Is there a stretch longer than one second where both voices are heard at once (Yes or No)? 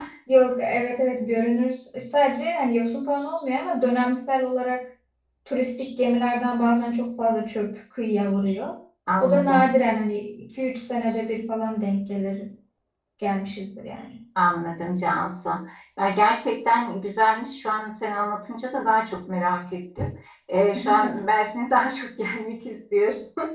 No